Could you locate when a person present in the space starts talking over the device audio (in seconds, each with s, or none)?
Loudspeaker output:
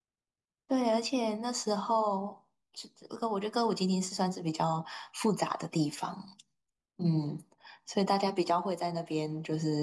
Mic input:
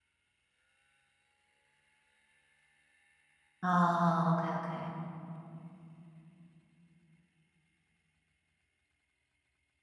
3.6 s